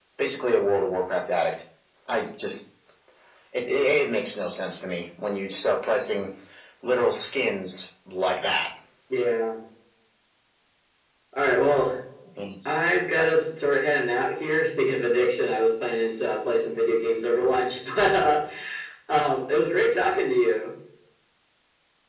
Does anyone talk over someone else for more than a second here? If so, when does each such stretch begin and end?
none

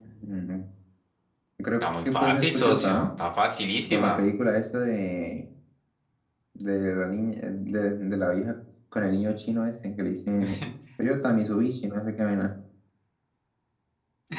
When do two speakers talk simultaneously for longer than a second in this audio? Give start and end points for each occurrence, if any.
1.8-3.1

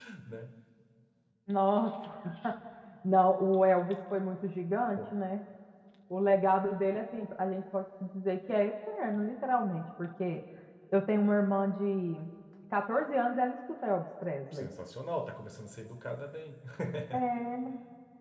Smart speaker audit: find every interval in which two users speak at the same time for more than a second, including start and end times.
none

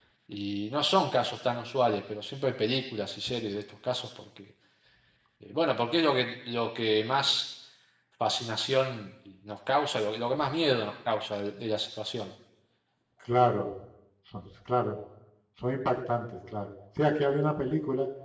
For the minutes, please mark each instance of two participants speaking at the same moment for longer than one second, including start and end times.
none

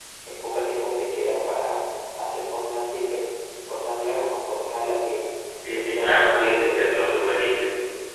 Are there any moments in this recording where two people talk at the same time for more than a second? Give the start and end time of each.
5.8-7.1

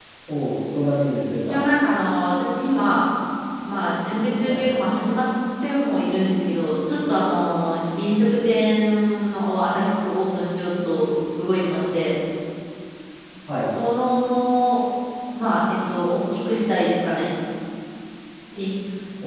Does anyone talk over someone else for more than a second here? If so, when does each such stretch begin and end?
none

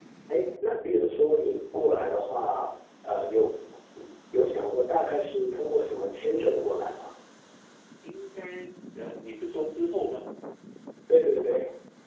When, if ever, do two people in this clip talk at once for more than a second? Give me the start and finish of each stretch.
none

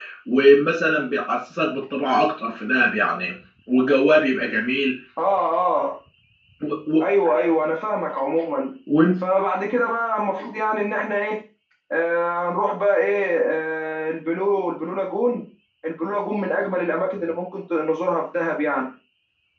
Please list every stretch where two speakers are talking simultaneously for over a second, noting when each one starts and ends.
none

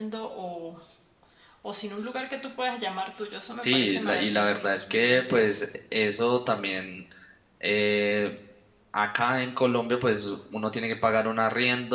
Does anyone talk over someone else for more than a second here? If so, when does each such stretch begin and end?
3.6-5.6

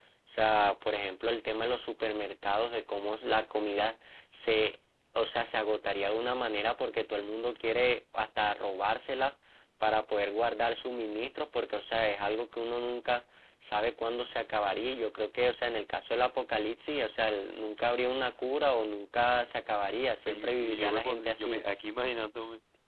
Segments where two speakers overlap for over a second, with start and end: 20.3-21.6

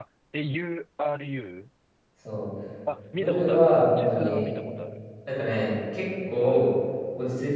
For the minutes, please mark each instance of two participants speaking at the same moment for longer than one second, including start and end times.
3.2-4.5

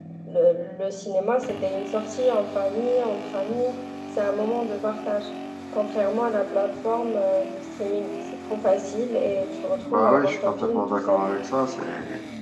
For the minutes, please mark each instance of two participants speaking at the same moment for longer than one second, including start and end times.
9.9-11.2

